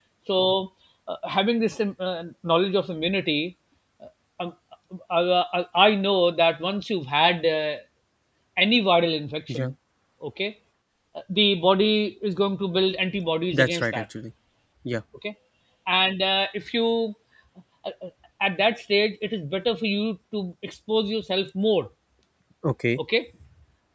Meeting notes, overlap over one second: none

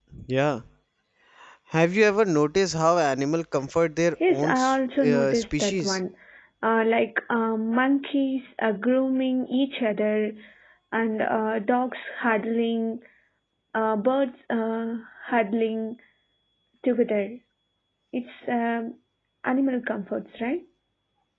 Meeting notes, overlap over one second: present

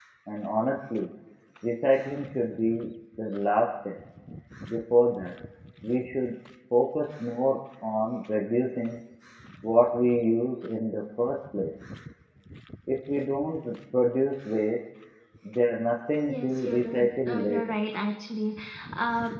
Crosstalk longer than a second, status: present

